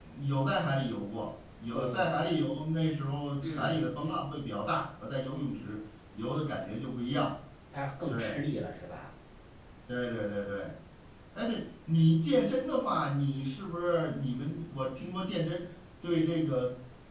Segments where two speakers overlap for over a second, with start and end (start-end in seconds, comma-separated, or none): none